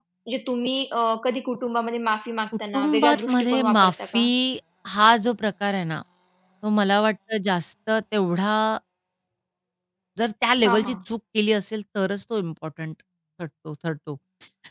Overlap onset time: 2.7 s

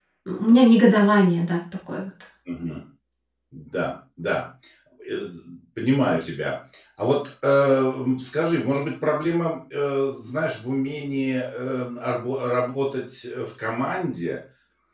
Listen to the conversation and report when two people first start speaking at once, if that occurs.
none

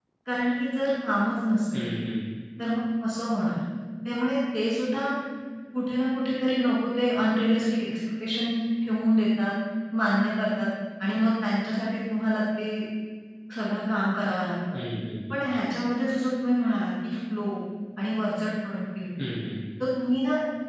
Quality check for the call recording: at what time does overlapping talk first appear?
none

